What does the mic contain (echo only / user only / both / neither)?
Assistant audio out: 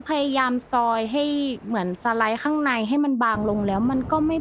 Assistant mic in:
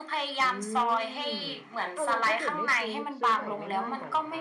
both